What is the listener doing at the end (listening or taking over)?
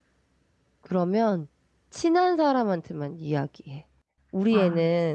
listening